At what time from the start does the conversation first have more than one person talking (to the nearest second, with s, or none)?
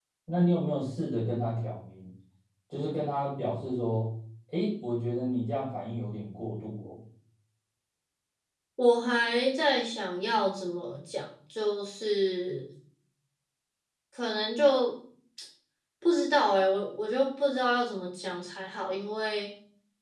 none